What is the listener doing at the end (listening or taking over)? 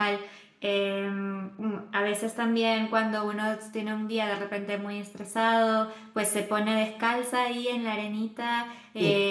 listening